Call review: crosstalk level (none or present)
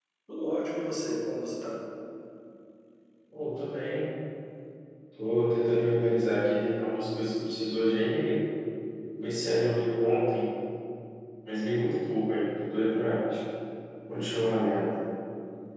none